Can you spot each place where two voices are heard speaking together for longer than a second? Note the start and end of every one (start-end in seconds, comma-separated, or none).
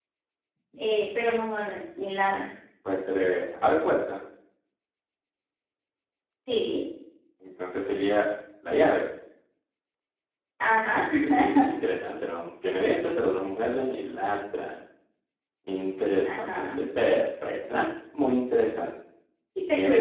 none